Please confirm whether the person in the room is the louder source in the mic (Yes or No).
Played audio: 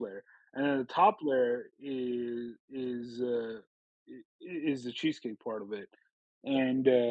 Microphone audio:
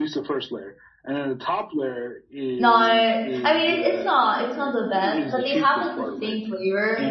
Yes